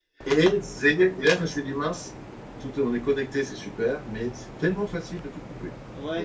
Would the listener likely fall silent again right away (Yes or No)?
No